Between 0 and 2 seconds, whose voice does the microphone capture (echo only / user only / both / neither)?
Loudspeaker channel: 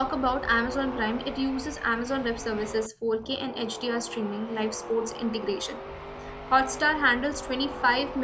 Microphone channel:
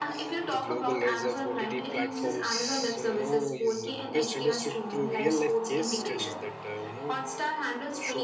both